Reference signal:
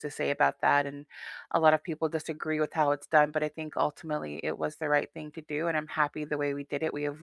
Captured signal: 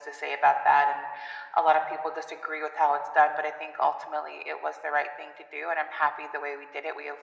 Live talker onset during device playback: none

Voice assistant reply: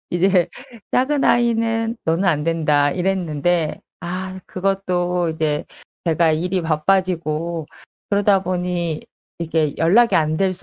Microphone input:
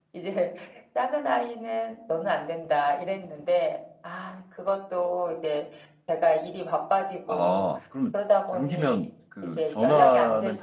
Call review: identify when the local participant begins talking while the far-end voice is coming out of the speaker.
7.2 s

